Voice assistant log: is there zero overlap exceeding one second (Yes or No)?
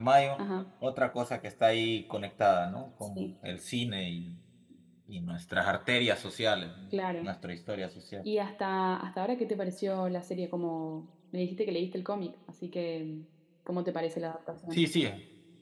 Yes